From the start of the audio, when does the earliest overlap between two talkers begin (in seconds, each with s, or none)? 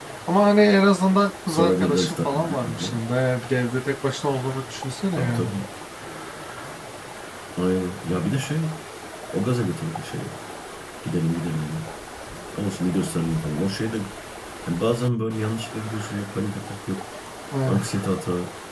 1.5 s